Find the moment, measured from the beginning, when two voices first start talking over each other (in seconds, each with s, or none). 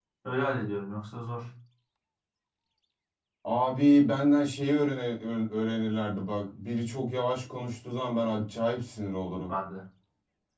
none